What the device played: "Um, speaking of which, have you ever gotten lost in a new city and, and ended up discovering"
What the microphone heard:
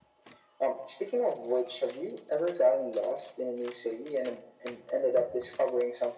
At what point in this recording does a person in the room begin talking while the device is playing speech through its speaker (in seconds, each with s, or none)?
none